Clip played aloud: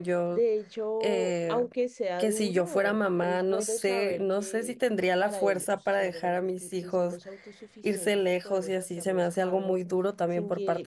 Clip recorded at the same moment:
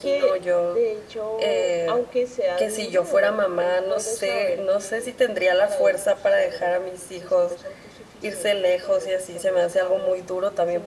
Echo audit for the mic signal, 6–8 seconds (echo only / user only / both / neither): echo only